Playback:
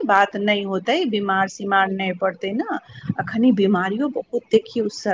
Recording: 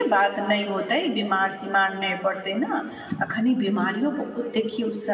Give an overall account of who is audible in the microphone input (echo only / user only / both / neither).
echo only